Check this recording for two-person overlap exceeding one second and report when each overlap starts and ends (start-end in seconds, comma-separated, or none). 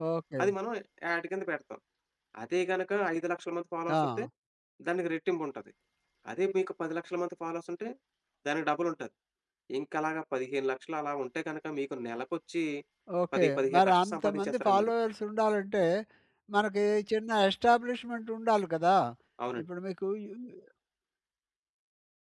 13.4-14.9